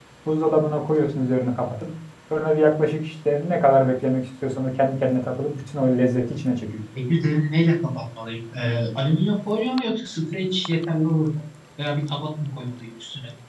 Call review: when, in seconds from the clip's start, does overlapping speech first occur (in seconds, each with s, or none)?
none